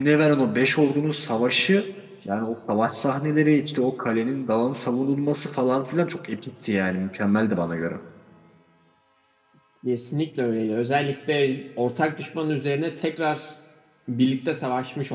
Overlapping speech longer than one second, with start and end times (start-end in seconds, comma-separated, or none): none